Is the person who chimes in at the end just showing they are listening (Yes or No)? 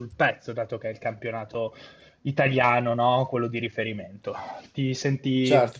Yes